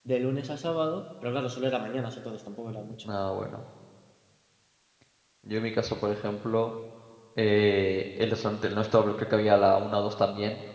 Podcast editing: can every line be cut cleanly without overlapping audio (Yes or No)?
Yes